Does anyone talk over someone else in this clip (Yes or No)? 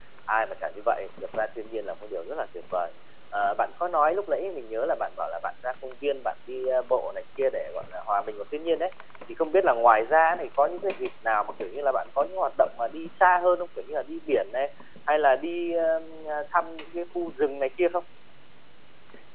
No